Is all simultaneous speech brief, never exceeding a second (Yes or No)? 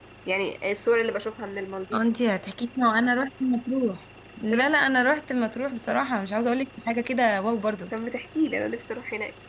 Yes